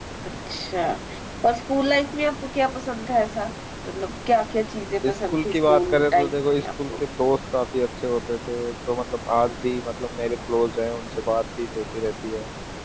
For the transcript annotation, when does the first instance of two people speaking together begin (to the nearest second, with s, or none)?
5 s